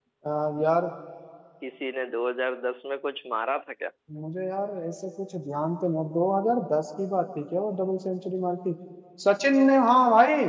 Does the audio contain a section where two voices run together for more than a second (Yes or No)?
No